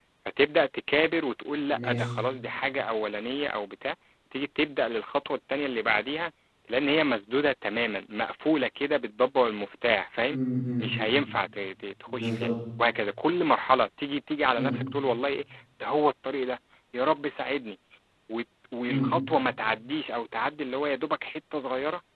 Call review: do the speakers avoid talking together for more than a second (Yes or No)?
Yes